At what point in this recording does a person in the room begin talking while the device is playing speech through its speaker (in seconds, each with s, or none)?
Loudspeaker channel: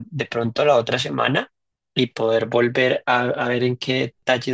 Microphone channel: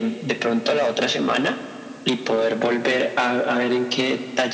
none